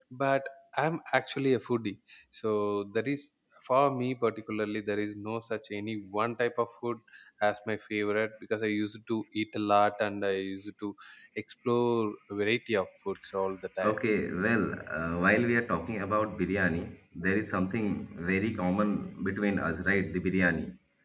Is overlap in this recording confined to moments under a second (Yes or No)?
Yes